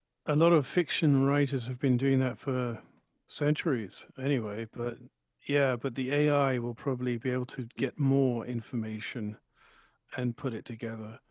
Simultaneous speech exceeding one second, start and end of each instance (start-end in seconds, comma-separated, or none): none